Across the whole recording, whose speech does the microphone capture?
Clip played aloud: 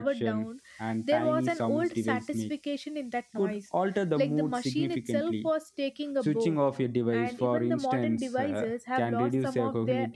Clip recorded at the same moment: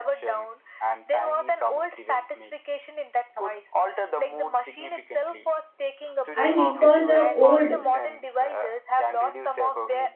both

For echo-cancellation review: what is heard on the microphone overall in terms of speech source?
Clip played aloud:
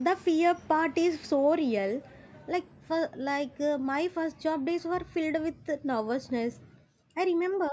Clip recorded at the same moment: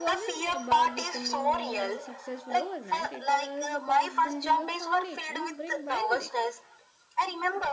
both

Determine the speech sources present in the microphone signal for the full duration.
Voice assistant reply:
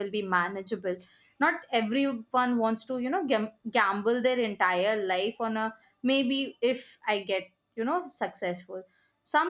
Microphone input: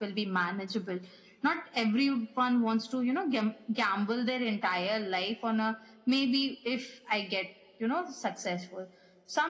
echo only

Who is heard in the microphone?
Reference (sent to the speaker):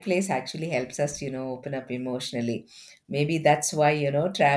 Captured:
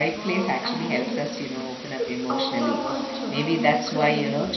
both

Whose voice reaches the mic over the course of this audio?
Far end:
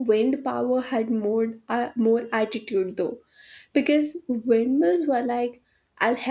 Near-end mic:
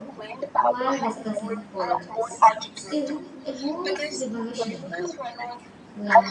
both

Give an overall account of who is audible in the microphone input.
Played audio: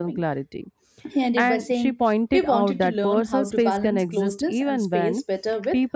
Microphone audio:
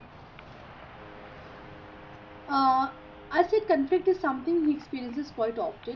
user only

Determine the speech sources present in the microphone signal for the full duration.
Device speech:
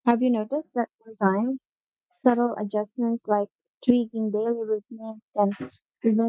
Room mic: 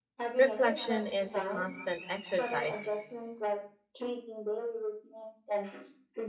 both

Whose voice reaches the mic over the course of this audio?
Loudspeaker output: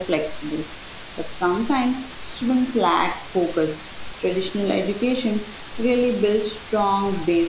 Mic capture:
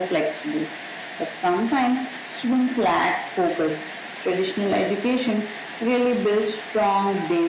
echo only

